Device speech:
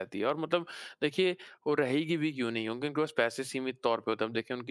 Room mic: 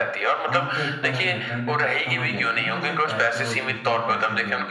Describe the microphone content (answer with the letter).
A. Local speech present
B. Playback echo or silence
A